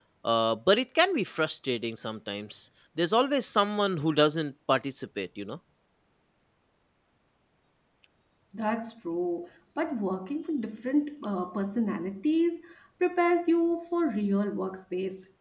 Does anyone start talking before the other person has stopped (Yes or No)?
No